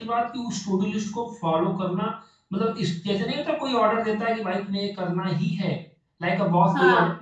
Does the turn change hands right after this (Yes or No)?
No